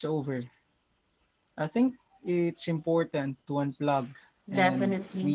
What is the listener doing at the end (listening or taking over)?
taking over